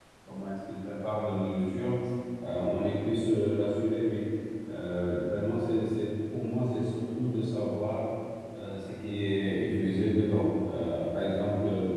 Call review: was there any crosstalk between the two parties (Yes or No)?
No